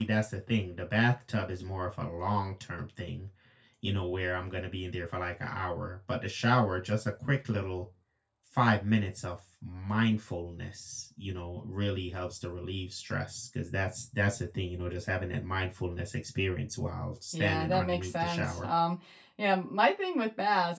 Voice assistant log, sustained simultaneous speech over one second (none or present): present